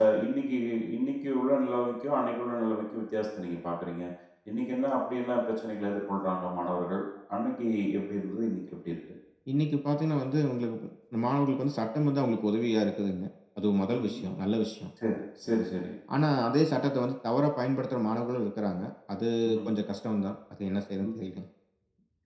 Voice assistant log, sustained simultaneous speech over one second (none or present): none